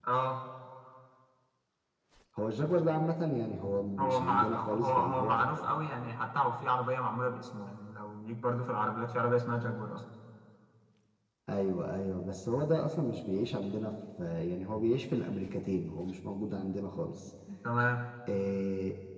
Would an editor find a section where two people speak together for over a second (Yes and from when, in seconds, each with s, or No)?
Yes, from 4.0 s